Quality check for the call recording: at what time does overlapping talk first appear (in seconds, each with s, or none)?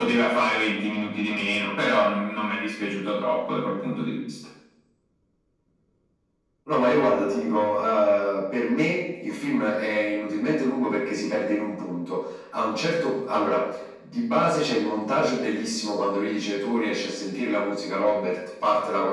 none